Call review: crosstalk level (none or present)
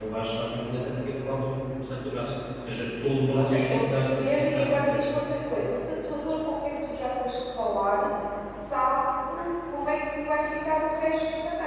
present